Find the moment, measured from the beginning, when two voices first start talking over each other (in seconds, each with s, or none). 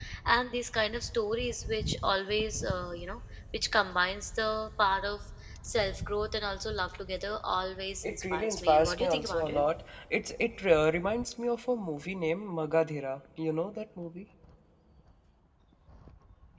8.0 s